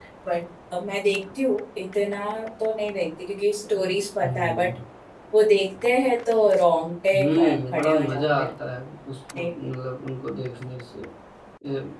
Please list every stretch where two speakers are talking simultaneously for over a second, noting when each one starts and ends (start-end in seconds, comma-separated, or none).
7.1-8.5